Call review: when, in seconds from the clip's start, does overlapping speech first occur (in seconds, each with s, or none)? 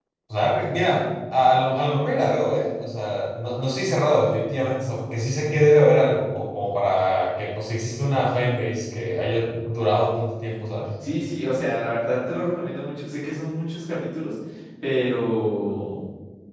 none